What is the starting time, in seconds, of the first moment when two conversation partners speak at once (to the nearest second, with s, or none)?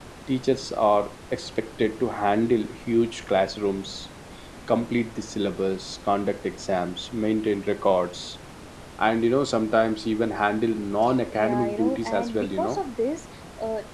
11 s